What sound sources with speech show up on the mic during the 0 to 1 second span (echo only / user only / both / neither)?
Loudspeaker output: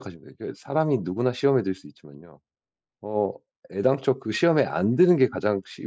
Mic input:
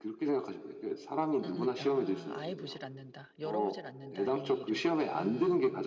echo only